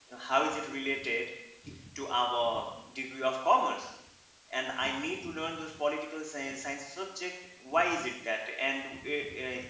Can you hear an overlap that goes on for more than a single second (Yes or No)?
No